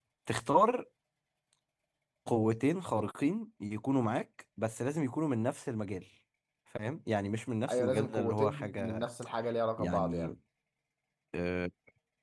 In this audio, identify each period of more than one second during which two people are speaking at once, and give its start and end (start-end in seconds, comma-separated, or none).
7.7-9.1